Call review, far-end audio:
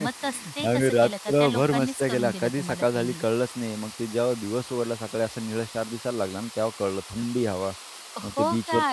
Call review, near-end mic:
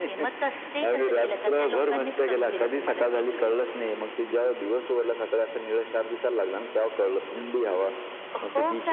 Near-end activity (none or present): none